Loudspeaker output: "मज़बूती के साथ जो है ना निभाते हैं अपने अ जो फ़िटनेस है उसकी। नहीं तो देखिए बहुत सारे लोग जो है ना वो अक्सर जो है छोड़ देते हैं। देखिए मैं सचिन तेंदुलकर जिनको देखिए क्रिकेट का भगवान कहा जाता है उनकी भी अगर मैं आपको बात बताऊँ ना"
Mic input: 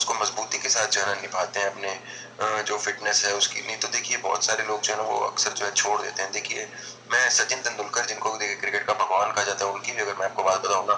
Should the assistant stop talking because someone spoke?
No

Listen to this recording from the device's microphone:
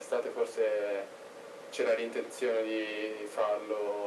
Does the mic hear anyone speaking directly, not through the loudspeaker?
No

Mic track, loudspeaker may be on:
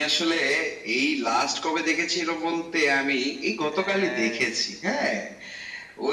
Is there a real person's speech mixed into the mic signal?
Yes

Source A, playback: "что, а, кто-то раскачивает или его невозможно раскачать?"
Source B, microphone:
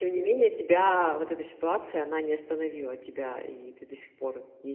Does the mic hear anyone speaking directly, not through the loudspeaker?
Yes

